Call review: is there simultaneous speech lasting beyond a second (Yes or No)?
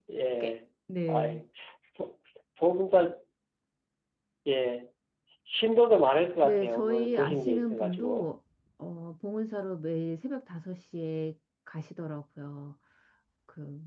Yes